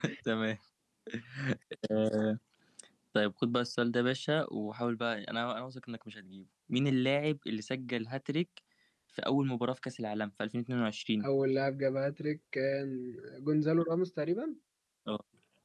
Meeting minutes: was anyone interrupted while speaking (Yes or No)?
No